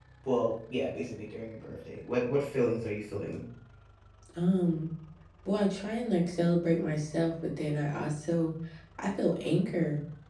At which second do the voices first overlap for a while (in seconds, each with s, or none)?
none